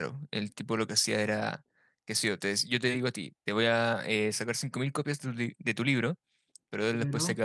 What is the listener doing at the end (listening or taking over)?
listening